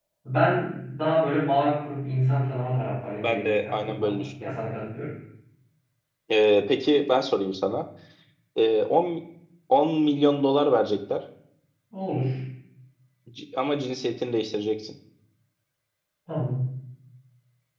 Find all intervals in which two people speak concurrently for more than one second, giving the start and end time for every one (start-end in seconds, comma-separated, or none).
3.2-4.5